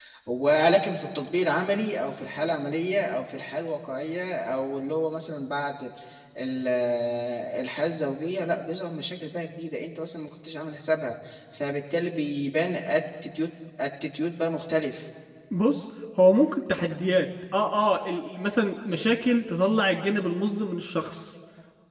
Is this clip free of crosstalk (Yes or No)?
Yes